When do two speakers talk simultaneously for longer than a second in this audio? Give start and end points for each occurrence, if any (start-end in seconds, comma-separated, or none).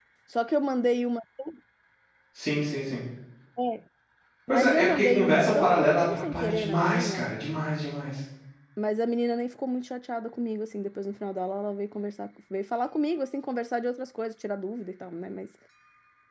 4.5-7.3